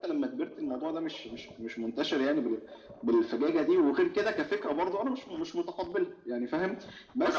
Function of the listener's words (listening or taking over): listening